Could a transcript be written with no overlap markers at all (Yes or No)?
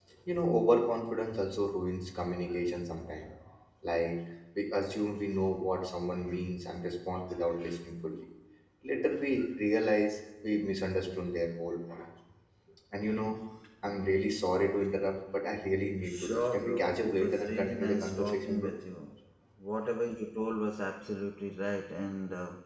No